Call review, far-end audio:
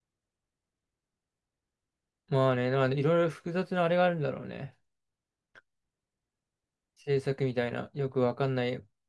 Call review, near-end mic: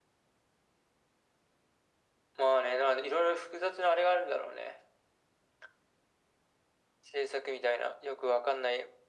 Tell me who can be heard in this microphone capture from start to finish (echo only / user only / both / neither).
echo only